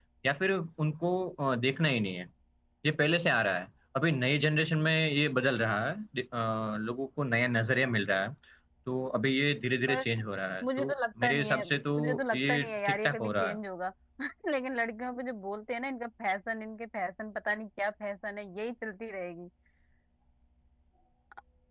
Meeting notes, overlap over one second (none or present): present